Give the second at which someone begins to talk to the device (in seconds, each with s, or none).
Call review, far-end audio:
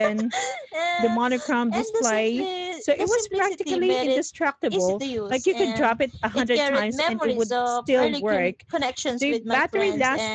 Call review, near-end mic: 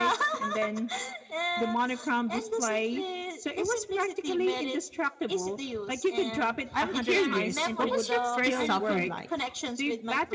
6.7 s